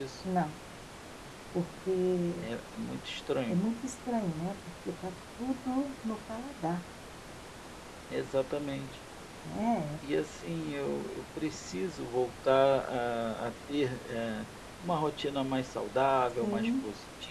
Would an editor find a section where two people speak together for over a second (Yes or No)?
No